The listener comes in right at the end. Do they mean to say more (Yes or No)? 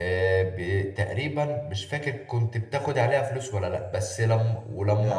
No